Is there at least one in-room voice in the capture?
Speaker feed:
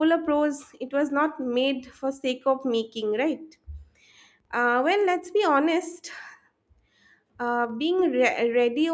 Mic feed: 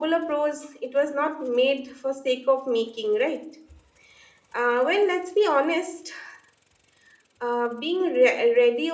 No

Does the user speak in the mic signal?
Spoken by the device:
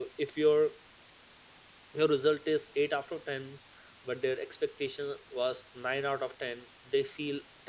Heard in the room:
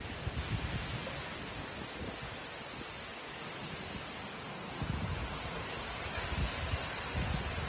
No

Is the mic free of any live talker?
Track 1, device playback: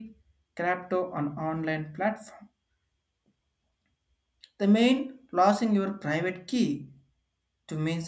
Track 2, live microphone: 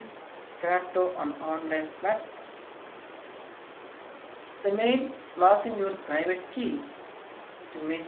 Yes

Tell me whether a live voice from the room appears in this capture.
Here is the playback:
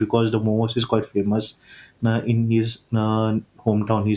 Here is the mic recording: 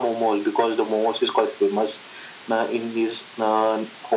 No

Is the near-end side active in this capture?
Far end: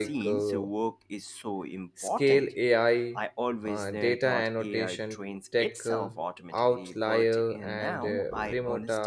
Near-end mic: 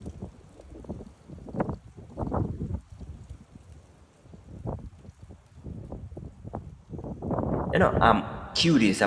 Yes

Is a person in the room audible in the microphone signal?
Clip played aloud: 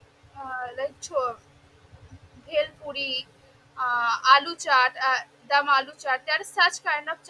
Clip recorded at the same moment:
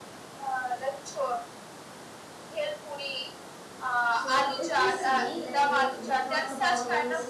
Yes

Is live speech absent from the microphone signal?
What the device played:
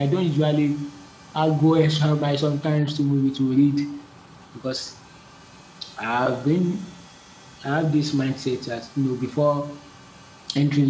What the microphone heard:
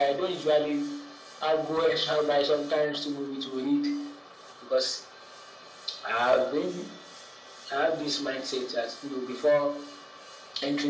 Yes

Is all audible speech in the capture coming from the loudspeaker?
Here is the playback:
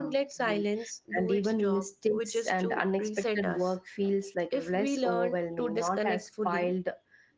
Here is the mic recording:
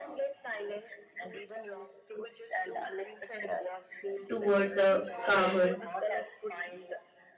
No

